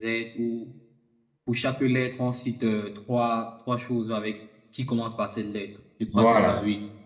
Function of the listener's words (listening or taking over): taking over